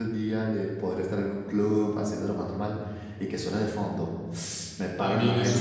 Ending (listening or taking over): taking over